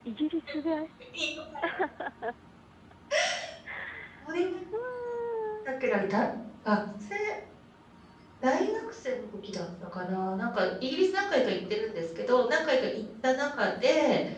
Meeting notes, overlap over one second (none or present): none